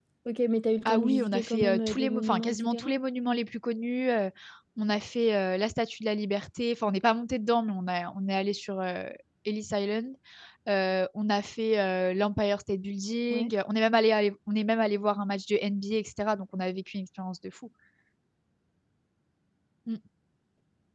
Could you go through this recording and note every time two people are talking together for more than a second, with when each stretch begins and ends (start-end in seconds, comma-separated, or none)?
0.8-2.9